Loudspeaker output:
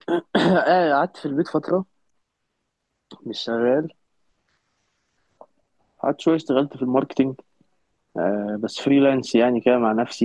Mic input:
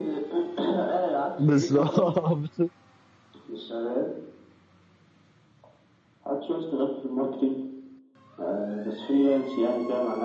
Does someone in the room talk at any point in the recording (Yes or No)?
Yes